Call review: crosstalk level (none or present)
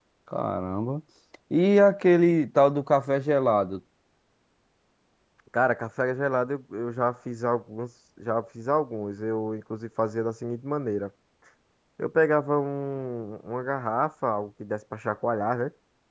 none